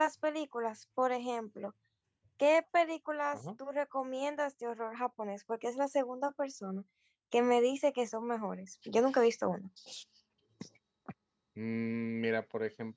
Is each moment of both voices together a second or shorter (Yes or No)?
Yes